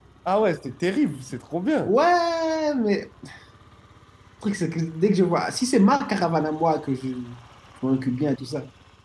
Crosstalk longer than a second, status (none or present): none